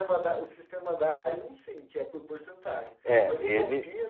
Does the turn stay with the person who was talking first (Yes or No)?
Yes